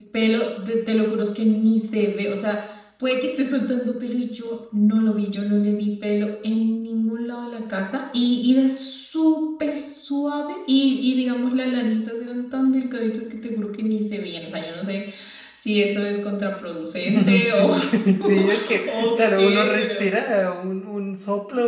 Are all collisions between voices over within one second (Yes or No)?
No